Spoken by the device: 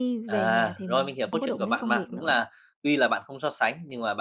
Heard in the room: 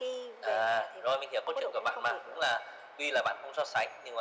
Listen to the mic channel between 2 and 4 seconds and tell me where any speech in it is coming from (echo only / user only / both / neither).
echo only